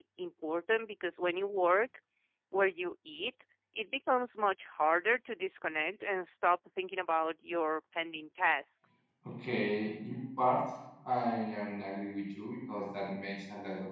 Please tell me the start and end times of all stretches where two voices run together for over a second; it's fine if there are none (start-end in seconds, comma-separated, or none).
none